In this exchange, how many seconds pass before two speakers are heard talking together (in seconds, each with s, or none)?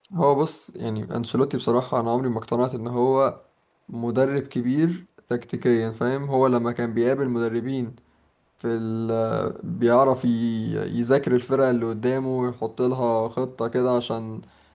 none